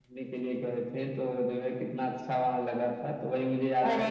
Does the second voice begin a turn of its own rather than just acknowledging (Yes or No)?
No